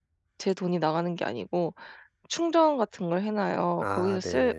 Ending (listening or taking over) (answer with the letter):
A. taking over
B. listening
B